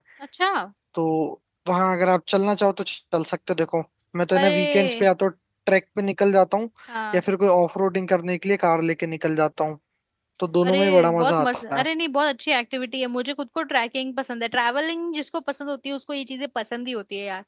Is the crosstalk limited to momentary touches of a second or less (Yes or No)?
No